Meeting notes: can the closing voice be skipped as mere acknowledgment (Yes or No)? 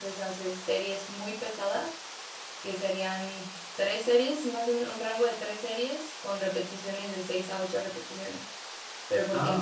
Yes